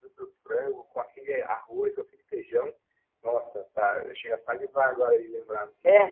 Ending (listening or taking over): taking over